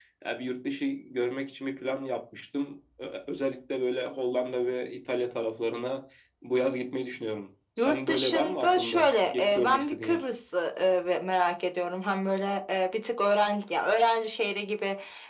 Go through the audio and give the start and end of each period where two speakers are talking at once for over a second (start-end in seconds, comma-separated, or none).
7.8-10.2